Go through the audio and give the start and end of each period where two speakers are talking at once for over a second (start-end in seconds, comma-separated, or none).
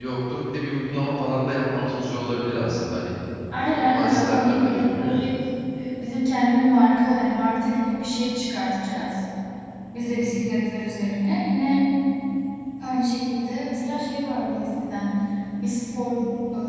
3.7-5.1